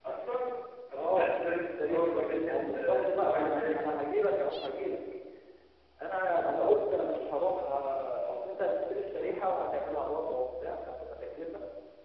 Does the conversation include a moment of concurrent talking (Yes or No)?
Yes